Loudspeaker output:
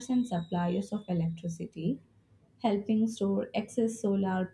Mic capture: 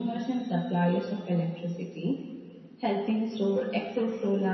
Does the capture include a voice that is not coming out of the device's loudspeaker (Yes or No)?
No